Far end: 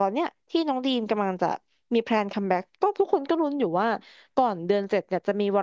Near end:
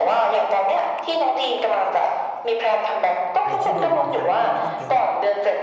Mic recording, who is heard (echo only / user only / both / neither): both